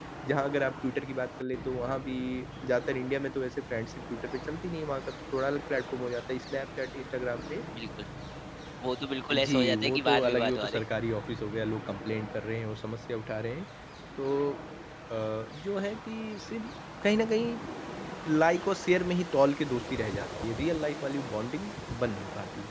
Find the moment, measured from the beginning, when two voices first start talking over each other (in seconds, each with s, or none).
9.3 s